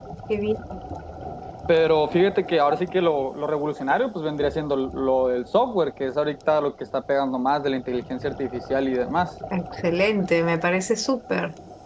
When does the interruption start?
none

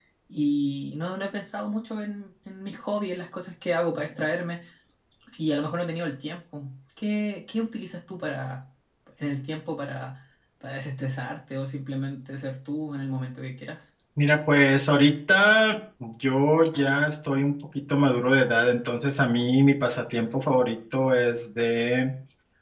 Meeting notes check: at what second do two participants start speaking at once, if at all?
none

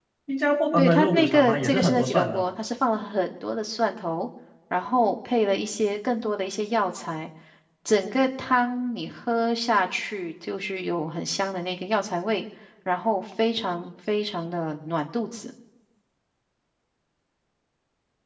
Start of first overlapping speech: 0.8 s

